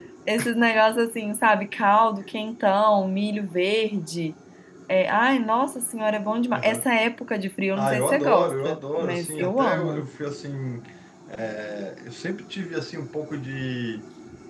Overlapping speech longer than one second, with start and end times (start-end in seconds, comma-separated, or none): 7.8-10.0